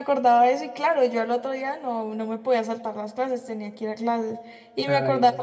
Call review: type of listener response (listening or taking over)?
listening